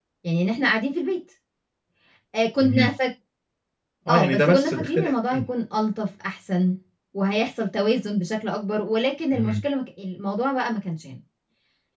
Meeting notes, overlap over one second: present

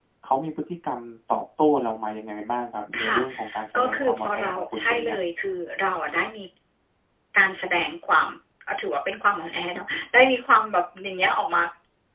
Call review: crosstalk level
present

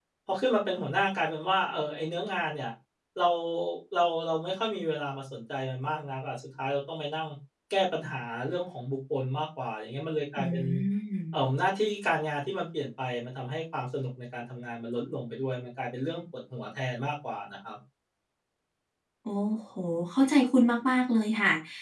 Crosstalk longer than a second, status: none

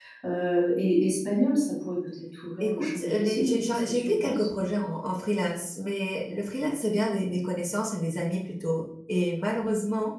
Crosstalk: present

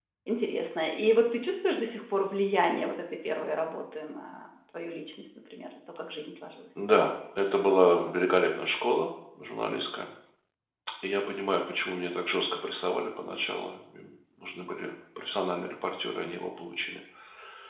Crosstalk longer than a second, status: none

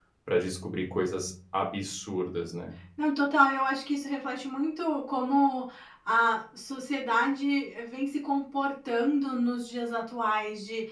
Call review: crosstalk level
none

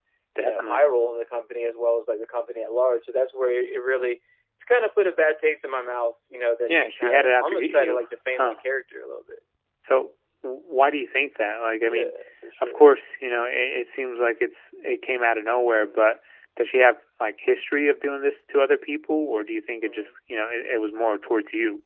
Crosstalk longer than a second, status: present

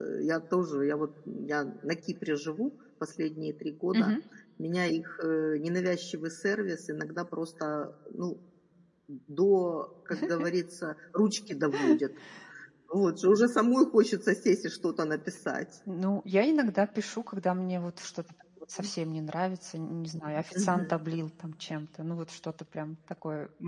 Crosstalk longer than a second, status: none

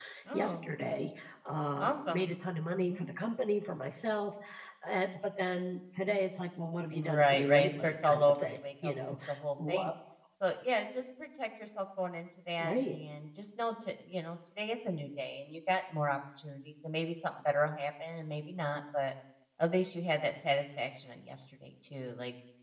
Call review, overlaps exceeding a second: present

